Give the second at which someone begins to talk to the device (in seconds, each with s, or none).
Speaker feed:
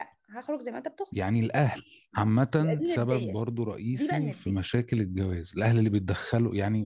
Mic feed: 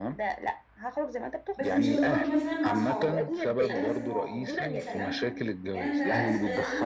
1.5 s